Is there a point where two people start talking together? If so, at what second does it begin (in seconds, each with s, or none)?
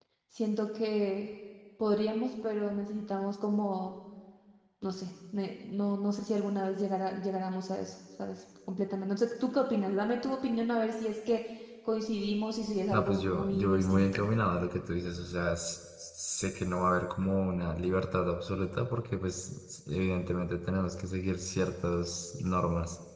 12.9 s